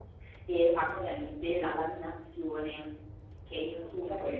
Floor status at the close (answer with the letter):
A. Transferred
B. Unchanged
B